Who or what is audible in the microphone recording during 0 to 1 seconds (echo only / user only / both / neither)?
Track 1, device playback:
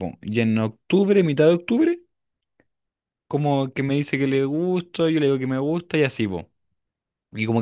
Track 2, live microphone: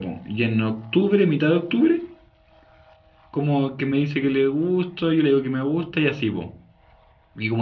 echo only